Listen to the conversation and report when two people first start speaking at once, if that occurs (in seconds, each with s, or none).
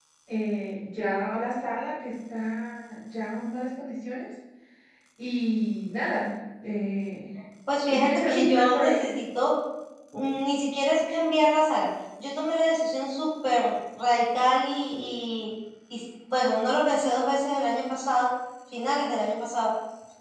7.9 s